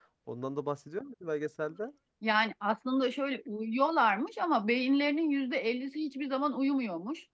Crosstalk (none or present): none